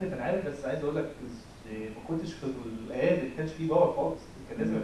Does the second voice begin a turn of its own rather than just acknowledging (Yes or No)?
No